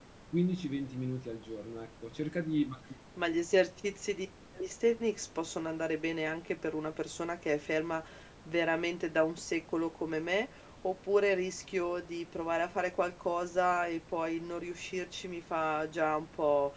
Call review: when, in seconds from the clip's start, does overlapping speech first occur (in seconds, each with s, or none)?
none